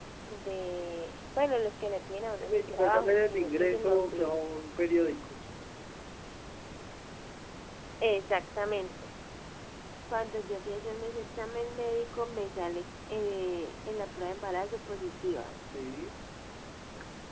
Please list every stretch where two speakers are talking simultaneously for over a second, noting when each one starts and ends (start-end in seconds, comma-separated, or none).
2.5-4.4